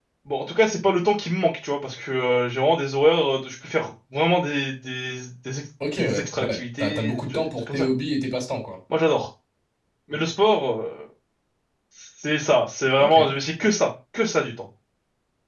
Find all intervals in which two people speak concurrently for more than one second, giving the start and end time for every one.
5.9-7.9

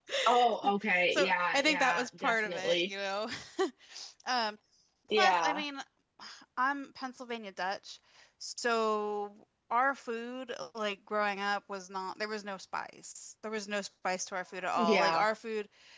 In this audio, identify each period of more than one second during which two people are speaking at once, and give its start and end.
1.1-2.9

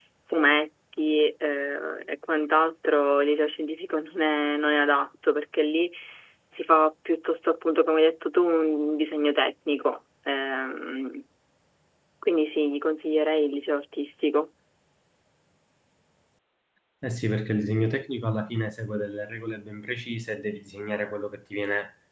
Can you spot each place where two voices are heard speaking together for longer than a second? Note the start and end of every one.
none

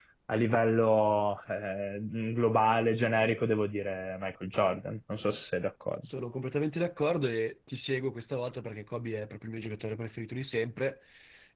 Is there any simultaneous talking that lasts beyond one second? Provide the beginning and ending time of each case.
none

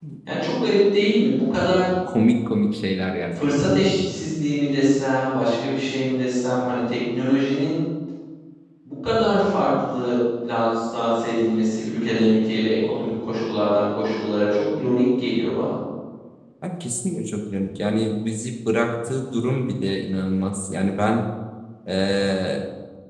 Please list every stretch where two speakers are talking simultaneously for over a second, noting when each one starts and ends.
none

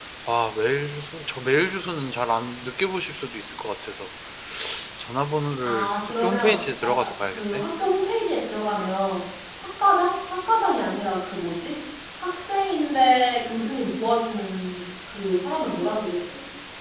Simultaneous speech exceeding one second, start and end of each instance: 5.6-7.6

